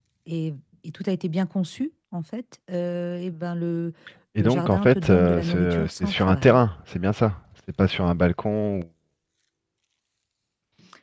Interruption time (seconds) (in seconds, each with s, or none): 4.4 s